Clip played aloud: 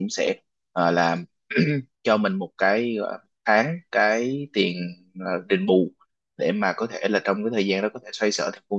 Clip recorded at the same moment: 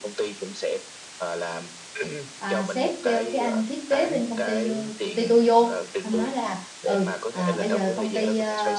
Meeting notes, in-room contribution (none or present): present